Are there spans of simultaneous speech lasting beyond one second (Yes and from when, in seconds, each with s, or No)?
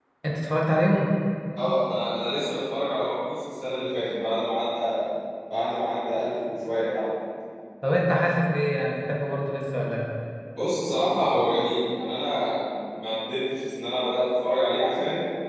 No